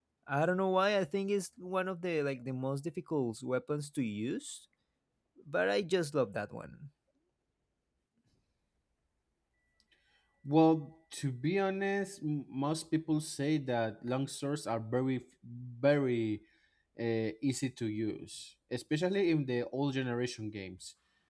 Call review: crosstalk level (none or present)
none